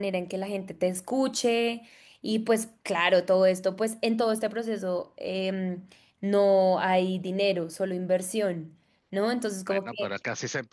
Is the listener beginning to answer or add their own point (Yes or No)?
Yes